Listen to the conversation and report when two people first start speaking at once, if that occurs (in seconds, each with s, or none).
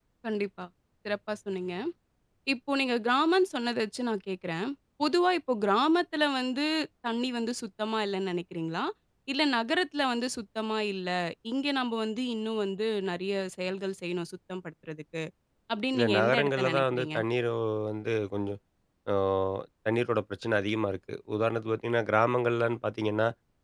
16.0 s